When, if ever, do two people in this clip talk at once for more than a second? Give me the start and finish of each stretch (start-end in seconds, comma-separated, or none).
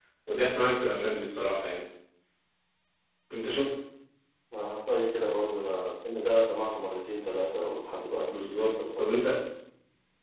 8.2-9.4